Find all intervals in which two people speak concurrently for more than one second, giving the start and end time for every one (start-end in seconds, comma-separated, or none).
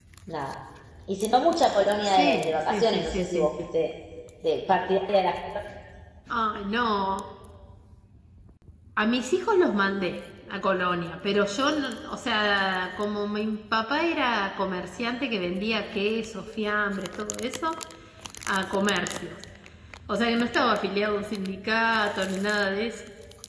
2.0-3.5